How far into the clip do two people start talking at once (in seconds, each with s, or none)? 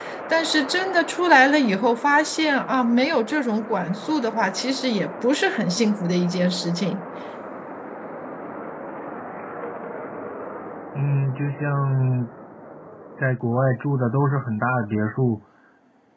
none